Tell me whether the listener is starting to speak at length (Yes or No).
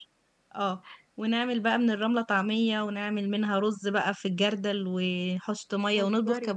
No